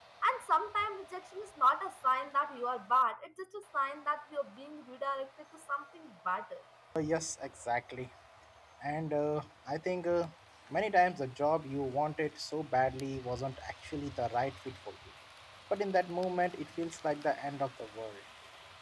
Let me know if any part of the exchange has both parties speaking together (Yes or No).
No